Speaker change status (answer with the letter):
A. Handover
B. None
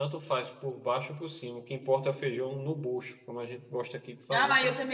A